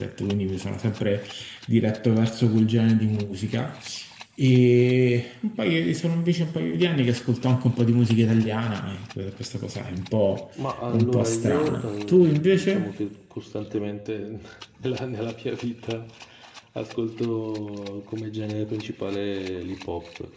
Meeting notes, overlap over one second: present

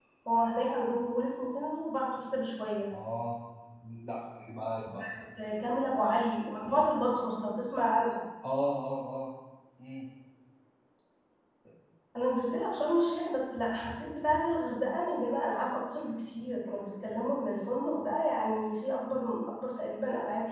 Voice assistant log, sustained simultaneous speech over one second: none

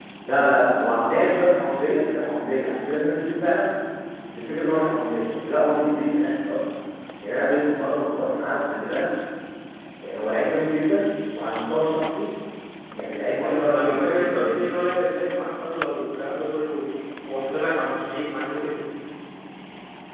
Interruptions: present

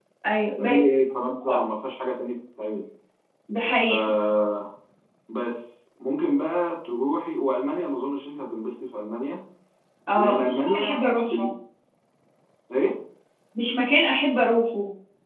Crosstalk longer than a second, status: present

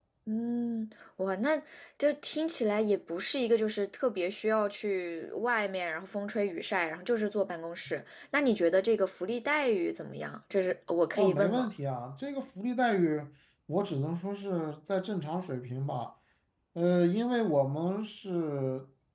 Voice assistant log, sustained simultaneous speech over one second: none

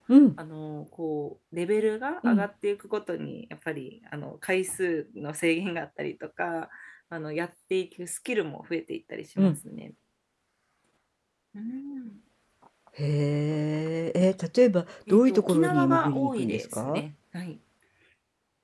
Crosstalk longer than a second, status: present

